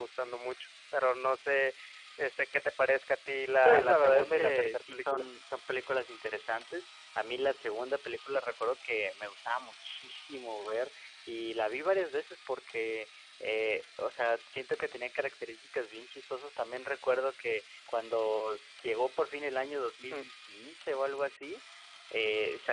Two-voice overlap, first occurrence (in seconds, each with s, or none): 3.6 s